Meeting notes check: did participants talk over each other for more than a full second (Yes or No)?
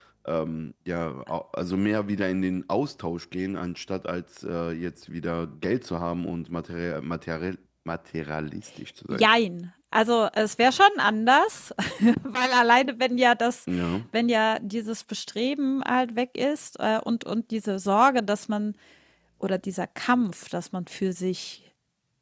No